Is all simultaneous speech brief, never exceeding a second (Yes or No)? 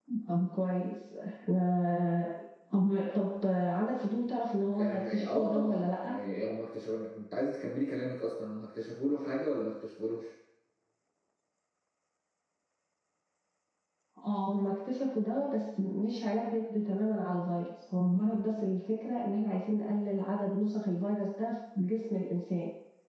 No